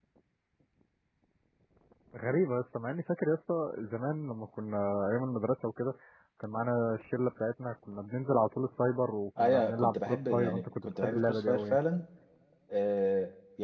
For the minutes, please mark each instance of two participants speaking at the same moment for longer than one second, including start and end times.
9.4-11.8

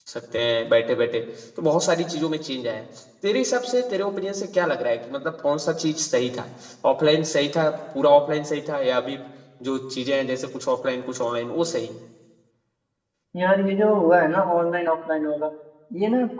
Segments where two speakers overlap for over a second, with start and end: none

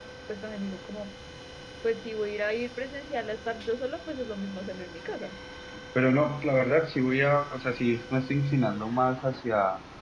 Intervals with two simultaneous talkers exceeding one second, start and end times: none

